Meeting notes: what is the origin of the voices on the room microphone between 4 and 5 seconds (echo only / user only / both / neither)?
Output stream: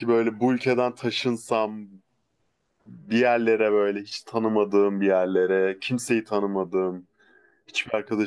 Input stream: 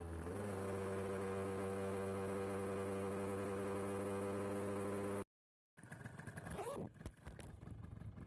neither